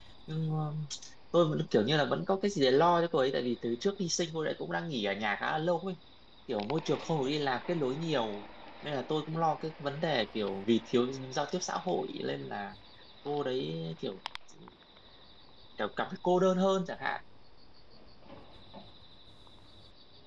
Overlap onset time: none

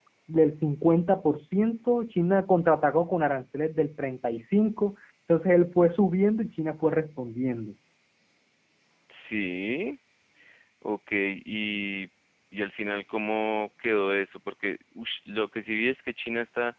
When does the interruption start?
none

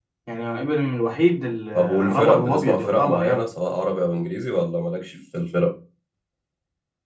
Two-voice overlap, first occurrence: 1.8 s

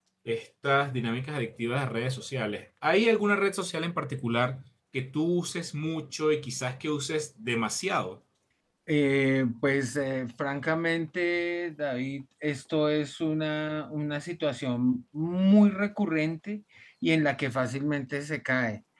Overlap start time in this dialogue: none

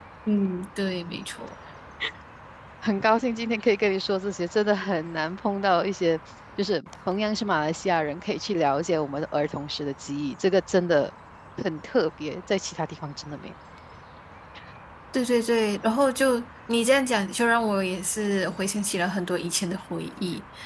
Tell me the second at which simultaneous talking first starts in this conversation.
none

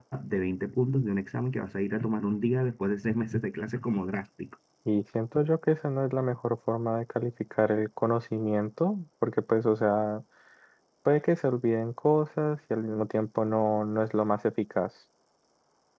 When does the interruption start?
none

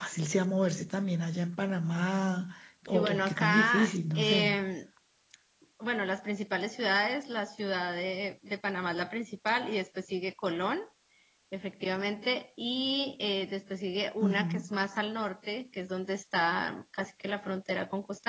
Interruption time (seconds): 2.9 s

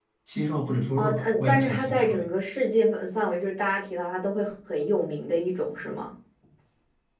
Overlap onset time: 1.0 s

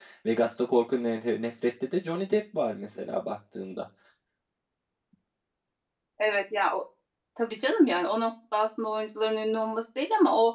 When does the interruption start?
none

